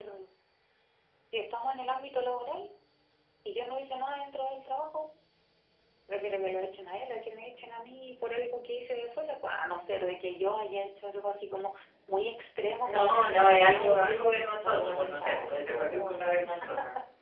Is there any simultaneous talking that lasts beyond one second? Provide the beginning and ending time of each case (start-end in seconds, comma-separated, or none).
12.8-16.3